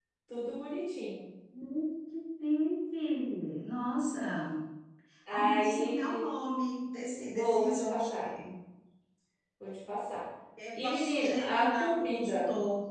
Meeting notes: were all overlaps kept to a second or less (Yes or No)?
No